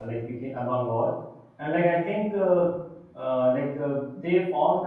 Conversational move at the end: listening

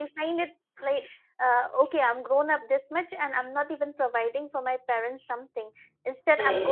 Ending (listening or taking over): listening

